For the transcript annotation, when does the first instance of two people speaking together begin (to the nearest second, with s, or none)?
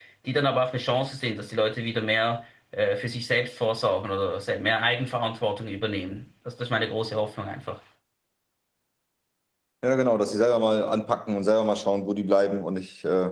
none